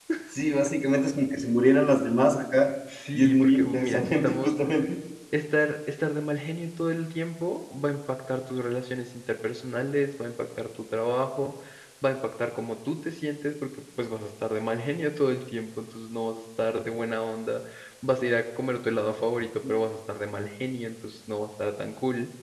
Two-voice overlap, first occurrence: 3.2 s

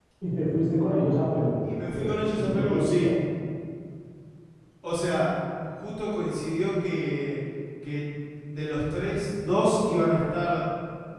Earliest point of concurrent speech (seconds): 1.6 s

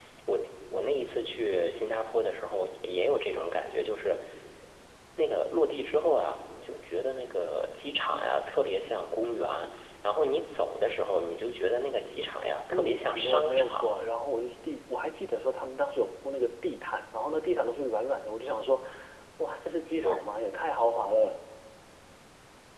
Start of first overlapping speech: 12.7 s

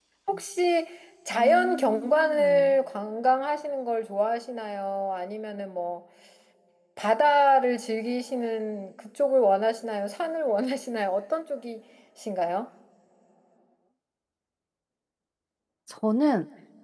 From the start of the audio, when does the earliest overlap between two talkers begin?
1.3 s

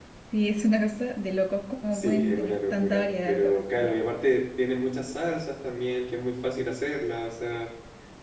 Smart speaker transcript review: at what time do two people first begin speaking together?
1.9 s

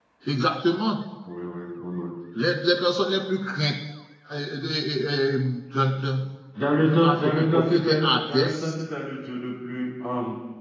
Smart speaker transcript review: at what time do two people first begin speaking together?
6.8 s

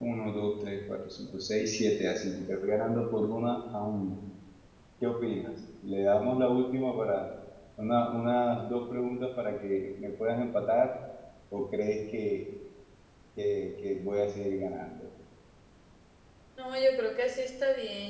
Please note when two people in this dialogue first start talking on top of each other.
none

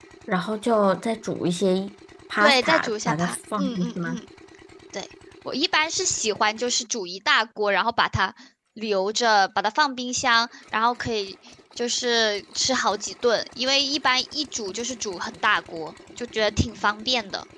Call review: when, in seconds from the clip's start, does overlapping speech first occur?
2.4 s

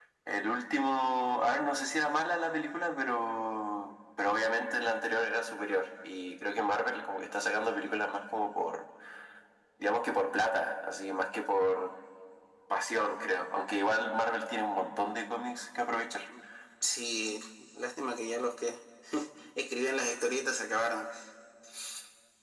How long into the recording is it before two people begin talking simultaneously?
none

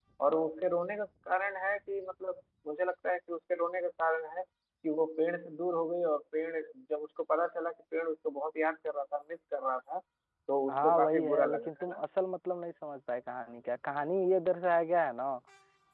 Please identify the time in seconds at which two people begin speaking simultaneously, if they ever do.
10.7 s

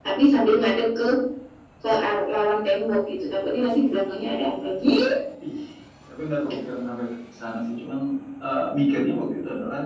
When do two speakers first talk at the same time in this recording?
none

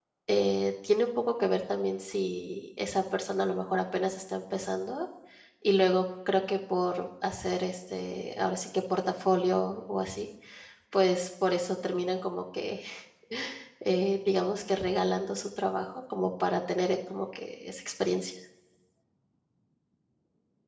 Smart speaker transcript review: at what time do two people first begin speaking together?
none

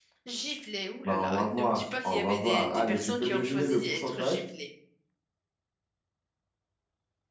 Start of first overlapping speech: 1.1 s

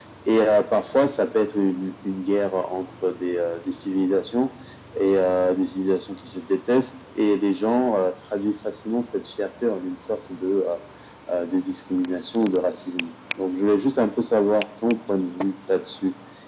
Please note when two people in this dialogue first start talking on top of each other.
none

